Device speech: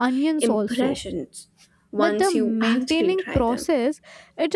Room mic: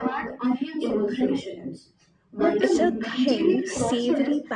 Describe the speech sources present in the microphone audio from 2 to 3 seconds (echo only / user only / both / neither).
both